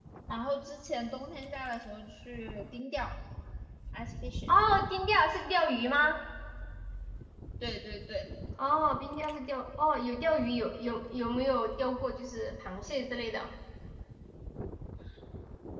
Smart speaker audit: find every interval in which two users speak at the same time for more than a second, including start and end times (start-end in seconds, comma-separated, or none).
none